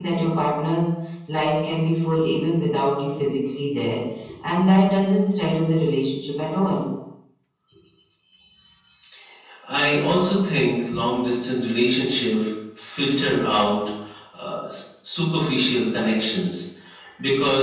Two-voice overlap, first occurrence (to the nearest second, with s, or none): none